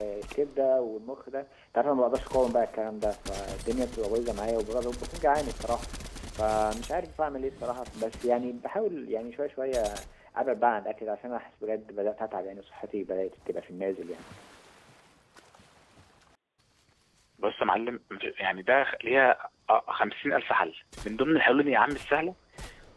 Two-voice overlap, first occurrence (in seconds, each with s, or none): none